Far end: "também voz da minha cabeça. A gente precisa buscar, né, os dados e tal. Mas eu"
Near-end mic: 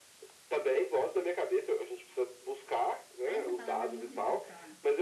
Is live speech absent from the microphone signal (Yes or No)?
No